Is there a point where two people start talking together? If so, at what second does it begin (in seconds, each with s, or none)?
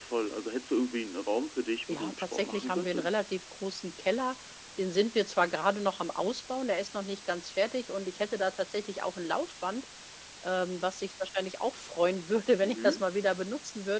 1.9 s